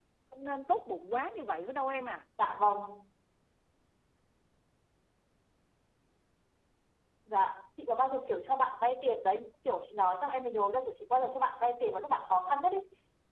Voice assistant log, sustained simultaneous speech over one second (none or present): none